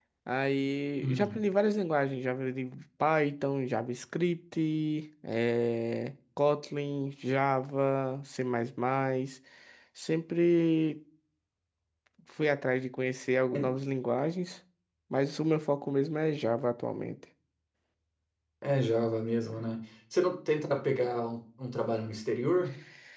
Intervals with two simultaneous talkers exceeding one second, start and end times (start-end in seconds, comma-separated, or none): none